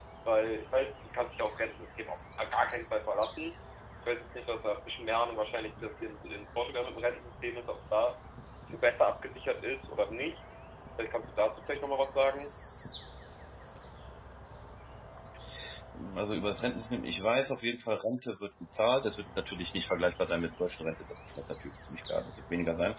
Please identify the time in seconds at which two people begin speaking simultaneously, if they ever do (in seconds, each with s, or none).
none